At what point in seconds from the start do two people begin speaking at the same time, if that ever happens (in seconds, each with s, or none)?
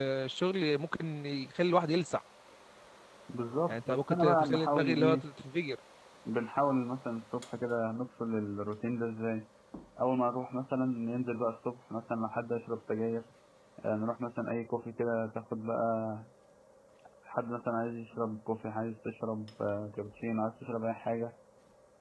3.7 s